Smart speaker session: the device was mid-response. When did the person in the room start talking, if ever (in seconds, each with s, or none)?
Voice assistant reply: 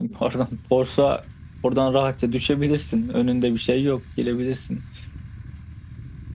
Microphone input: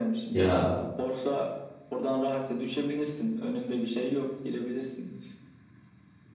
0.3 s